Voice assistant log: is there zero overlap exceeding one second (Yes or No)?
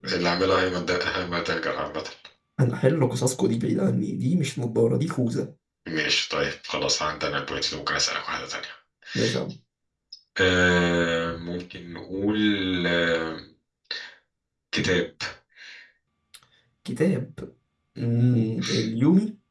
Yes